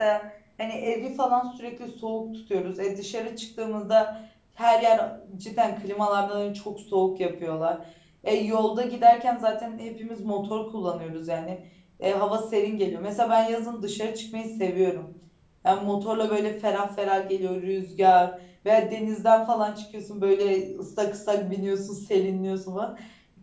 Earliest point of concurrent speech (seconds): none

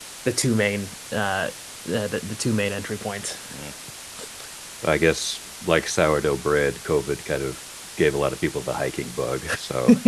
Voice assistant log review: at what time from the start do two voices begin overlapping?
none

